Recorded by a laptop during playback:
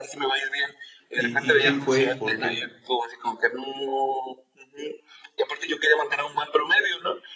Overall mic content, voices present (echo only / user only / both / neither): both